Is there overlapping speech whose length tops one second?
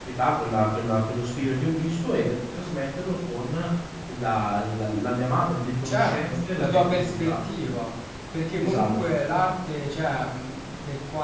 Yes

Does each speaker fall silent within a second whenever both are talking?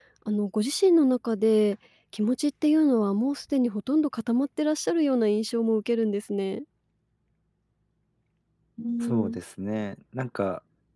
Yes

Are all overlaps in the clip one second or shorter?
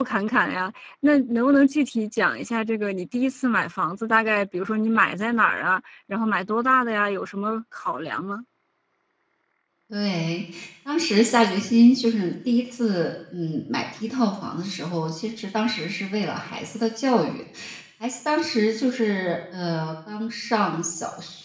Yes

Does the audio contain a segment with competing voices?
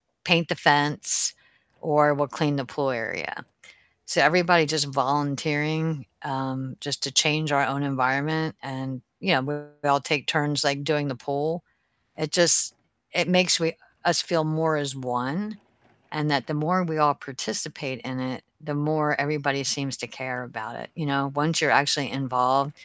No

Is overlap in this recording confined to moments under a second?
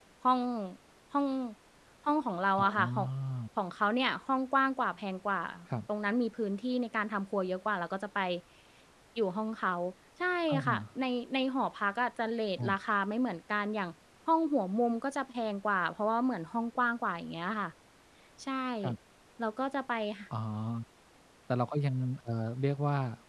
Yes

